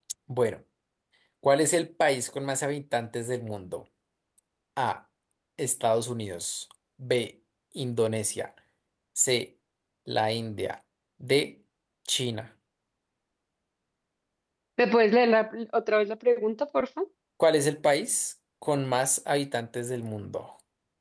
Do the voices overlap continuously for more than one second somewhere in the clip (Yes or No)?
No